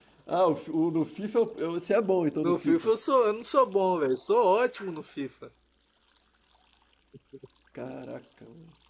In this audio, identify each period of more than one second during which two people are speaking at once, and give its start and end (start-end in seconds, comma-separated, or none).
none